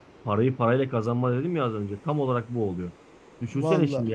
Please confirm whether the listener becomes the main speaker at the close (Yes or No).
No